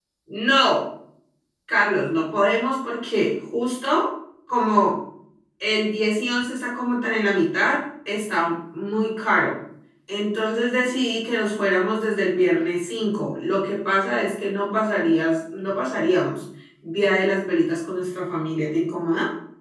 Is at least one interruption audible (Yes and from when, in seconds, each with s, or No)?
No